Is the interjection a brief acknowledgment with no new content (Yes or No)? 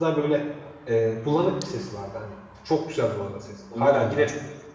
Yes